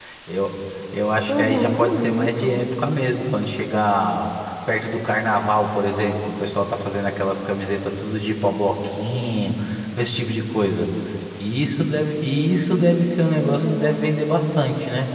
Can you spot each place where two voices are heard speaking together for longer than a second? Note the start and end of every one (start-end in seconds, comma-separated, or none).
1.3-2.6, 12.7-14.0